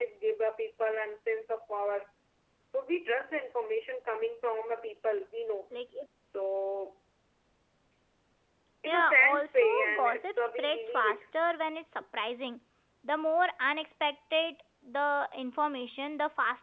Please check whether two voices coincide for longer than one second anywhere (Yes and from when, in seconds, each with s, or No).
Yes, from 8.9 s